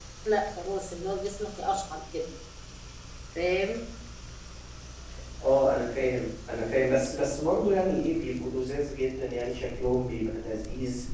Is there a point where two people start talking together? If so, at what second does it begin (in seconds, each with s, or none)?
none